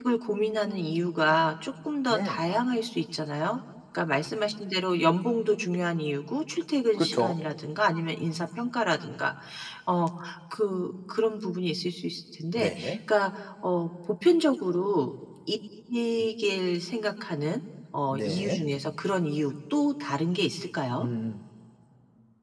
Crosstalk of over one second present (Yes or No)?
No